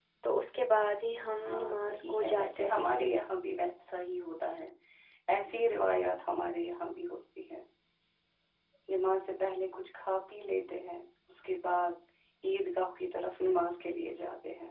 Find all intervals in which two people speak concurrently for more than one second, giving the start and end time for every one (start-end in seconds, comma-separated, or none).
1.4-2.9